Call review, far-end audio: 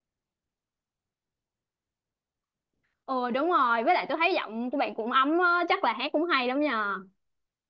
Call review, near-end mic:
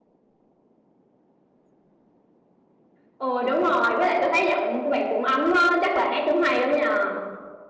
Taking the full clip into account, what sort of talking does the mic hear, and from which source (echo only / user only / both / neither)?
echo only